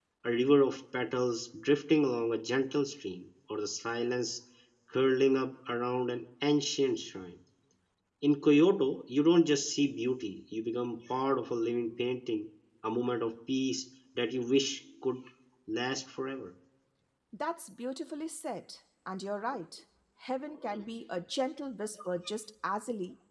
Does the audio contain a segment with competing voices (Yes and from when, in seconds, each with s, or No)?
No